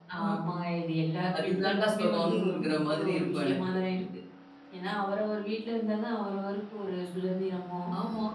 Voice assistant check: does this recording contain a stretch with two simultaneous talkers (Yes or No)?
Yes